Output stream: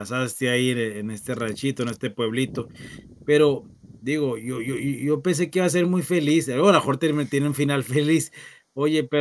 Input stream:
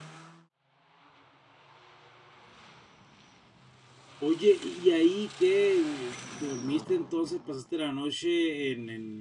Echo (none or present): none